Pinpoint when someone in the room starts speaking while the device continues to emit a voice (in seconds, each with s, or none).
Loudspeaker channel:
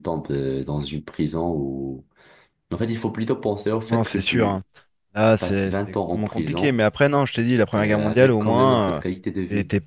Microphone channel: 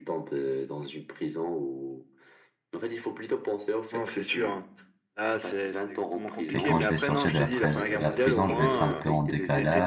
6.5 s